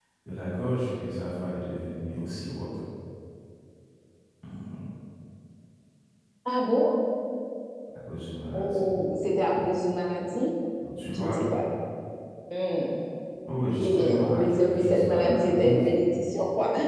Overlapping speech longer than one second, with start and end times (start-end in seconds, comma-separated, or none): 13.8-15.8